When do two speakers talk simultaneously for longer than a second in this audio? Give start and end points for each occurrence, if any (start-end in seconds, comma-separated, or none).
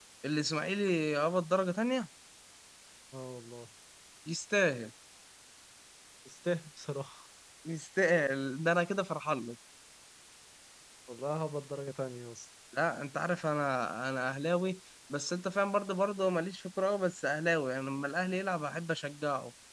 none